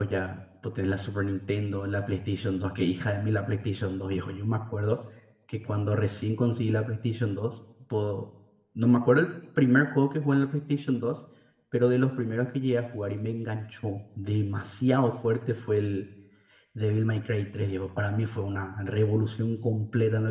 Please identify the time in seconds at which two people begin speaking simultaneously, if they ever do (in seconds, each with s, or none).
none